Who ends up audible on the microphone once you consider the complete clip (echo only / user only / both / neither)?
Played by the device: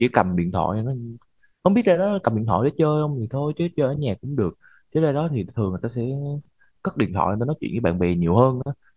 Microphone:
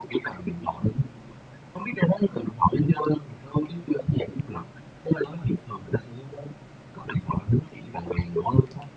echo only